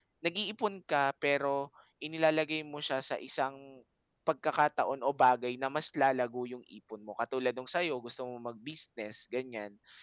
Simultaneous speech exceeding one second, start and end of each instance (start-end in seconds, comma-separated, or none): none